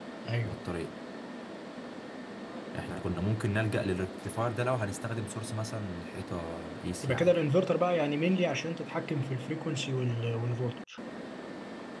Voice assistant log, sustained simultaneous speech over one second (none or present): none